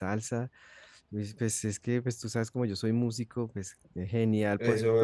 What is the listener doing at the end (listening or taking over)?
listening